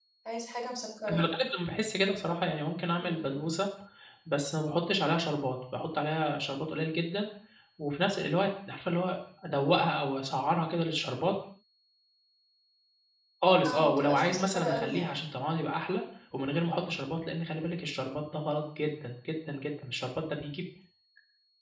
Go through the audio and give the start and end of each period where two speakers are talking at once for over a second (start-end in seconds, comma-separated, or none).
13.7-15.2